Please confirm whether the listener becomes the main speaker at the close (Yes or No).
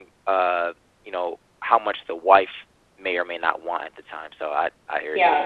Yes